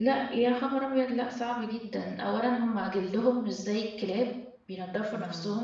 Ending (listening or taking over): listening